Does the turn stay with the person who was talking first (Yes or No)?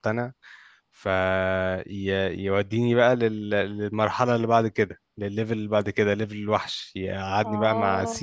Yes